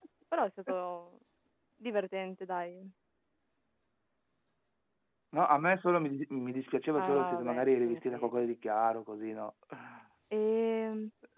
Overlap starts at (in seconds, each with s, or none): 6.9 s